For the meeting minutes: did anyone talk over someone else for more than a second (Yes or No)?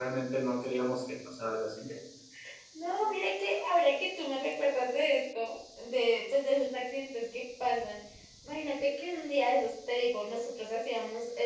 No